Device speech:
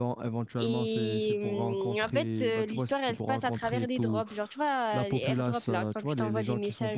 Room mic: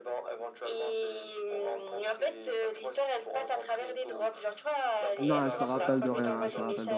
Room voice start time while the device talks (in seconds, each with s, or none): 5.2 s